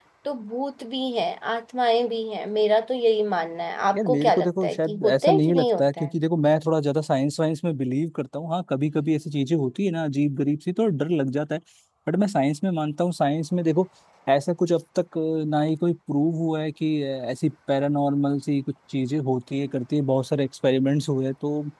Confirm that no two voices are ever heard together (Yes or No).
No